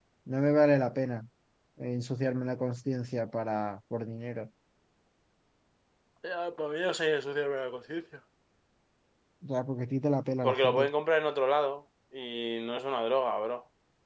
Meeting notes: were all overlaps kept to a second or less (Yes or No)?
Yes